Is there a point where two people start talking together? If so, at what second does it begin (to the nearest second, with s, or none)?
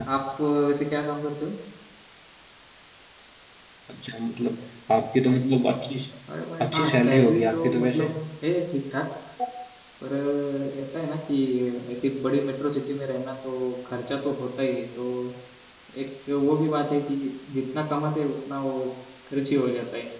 7 s